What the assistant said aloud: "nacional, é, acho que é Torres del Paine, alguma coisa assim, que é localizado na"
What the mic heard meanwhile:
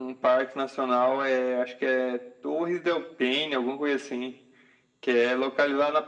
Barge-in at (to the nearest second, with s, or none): none